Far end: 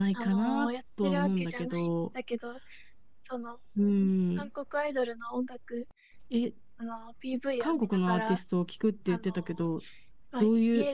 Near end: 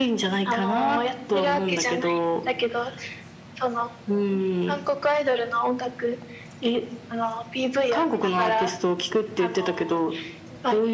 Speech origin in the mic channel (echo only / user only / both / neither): echo only